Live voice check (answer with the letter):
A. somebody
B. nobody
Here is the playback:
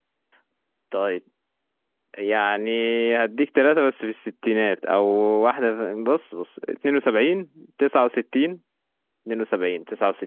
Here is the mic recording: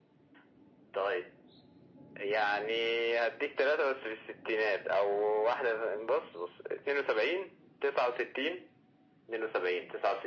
B